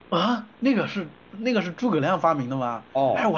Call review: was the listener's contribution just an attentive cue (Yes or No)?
No